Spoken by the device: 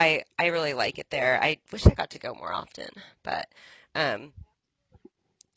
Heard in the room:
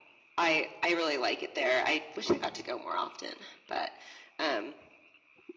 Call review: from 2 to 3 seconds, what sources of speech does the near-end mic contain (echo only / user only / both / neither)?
echo only